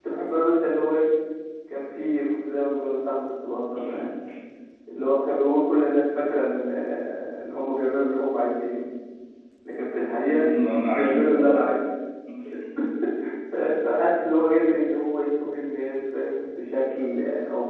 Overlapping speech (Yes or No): Yes